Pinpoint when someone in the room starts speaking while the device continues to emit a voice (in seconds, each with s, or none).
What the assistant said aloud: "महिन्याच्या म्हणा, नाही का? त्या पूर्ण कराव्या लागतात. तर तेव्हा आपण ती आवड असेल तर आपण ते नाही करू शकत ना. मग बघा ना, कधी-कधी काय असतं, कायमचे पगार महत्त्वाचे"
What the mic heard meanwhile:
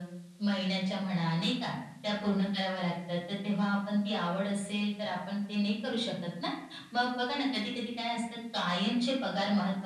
none